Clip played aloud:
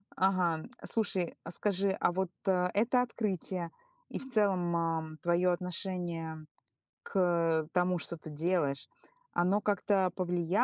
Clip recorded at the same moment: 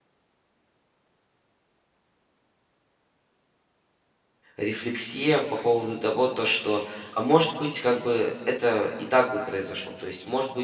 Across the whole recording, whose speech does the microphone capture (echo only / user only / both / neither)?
user only